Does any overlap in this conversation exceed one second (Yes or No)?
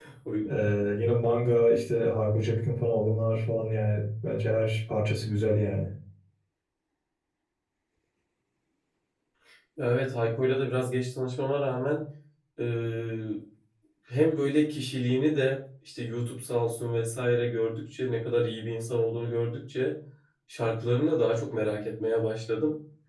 No